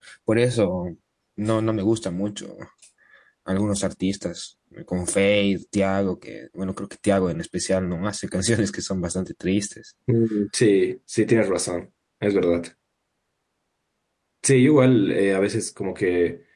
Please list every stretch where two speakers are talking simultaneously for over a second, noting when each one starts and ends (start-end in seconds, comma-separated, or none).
none